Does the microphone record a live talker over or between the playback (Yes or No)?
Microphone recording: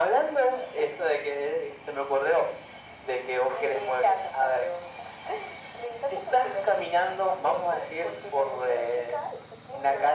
No